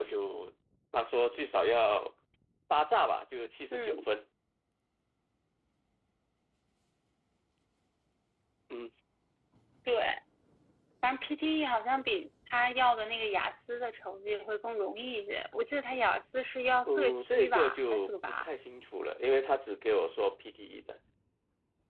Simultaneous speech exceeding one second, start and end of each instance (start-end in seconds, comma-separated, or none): 16.9-18.5